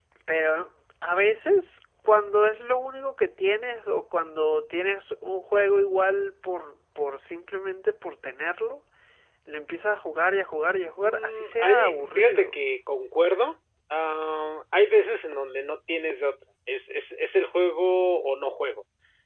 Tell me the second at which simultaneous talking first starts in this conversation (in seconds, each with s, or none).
11.0 s